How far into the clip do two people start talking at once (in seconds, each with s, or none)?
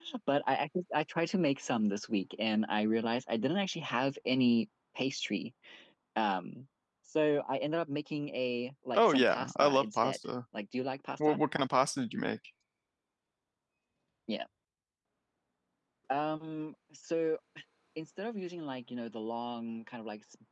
8.9 s